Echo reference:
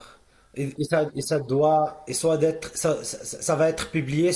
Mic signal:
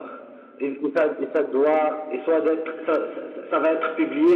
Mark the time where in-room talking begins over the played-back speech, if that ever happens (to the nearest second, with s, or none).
none